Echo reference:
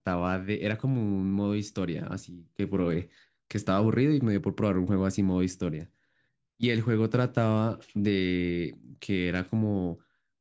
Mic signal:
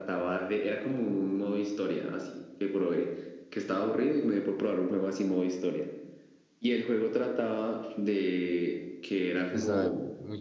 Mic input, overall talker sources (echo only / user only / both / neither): both